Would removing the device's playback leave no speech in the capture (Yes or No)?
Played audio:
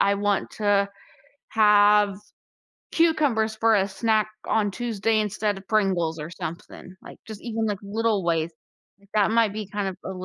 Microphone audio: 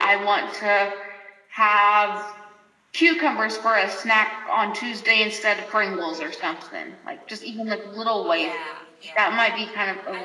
No